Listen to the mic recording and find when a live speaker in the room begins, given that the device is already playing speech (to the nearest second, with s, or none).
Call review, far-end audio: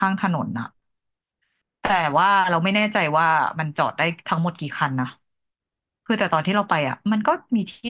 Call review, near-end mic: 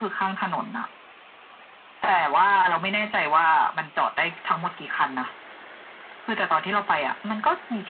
none